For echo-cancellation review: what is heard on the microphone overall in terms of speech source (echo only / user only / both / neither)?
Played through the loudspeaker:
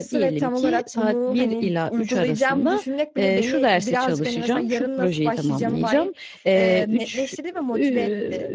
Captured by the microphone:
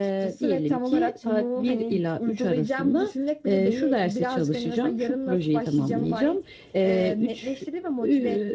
echo only